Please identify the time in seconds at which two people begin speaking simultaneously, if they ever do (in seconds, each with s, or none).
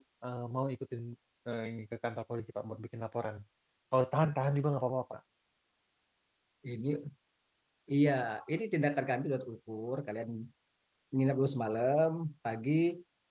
none